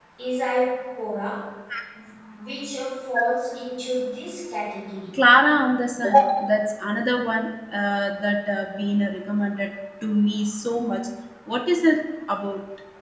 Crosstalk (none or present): none